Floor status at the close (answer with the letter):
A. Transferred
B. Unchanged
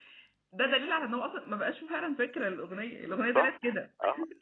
A